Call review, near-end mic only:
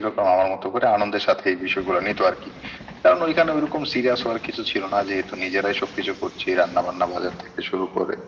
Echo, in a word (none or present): present